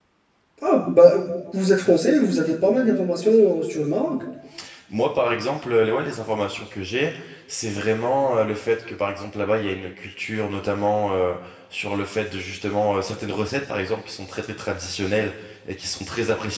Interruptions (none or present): none